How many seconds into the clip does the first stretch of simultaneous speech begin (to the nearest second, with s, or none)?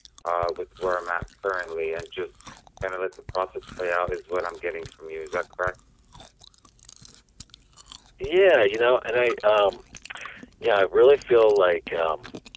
none